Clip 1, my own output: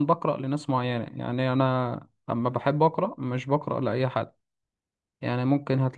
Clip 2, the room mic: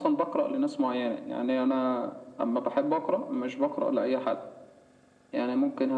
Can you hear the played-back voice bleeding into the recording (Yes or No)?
Yes